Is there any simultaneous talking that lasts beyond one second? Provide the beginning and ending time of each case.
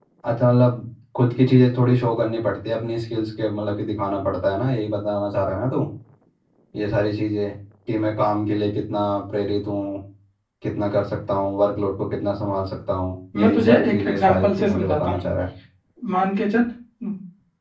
13.3-15.2

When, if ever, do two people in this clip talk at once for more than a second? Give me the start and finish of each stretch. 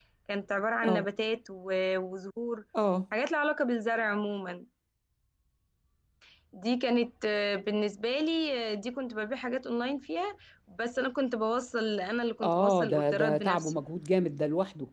12.4-13.8

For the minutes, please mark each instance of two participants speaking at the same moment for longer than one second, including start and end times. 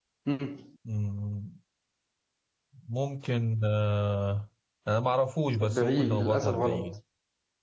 5.6-6.9

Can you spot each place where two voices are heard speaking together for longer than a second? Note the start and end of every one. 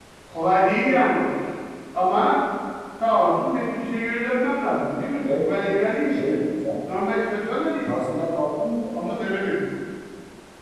none

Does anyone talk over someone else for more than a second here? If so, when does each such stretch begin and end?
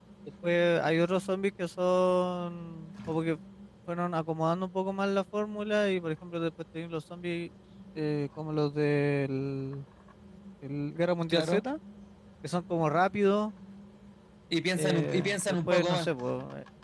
14.8-16.1

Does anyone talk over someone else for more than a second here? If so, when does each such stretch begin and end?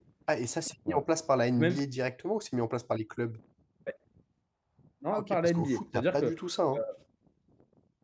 5.1-6.3

